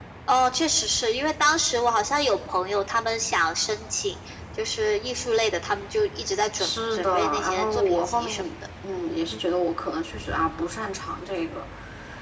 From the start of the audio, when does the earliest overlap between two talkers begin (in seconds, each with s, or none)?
6.6 s